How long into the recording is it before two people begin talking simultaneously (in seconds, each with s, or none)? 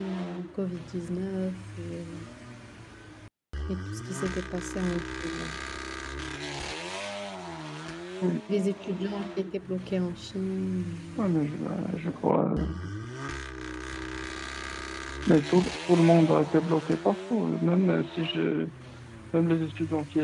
none